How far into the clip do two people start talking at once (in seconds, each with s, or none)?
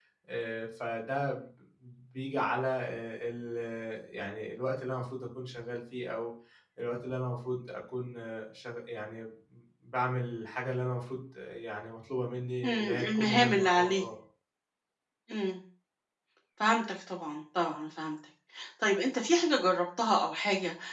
12.6 s